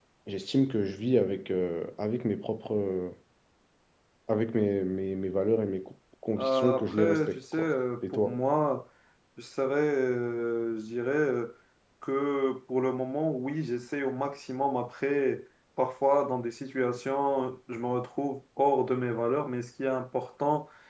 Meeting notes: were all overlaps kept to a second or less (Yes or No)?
No